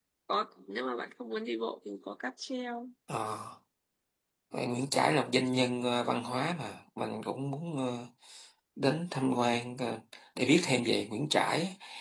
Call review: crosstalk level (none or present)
none